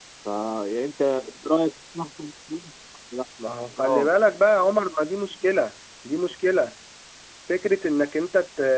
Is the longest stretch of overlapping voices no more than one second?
Yes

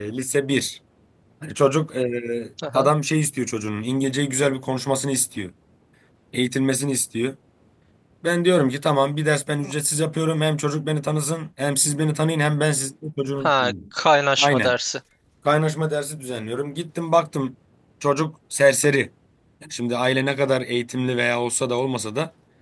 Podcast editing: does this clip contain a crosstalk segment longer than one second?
No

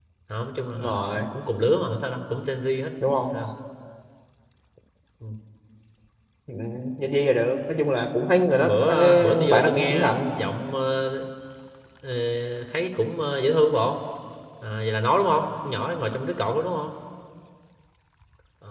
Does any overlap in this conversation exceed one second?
Yes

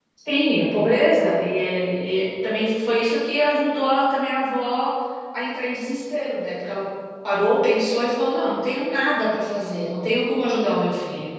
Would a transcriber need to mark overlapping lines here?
No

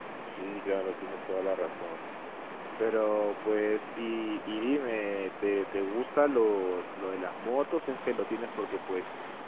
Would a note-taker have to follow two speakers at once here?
No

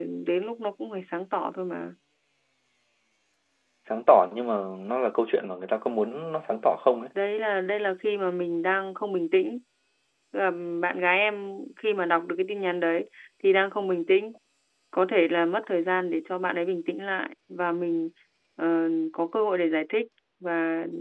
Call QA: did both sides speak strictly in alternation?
Yes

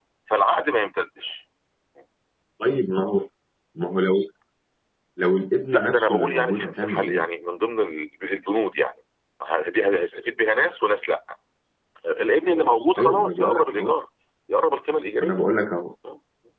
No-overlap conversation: No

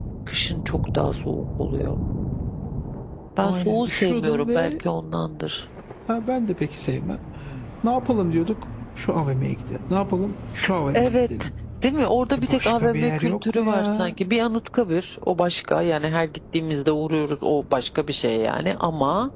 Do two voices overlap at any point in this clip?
Yes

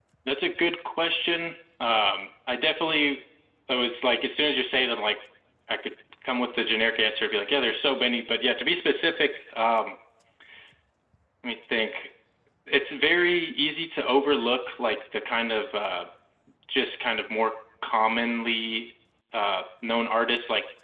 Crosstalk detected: No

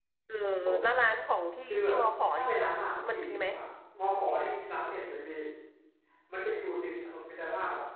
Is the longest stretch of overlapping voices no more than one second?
Yes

